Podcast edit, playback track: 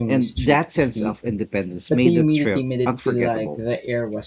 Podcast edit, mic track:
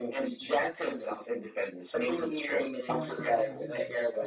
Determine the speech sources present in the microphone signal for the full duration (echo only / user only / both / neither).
both